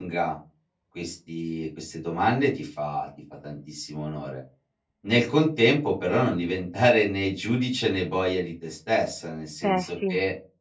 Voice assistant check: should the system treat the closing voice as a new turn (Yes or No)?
No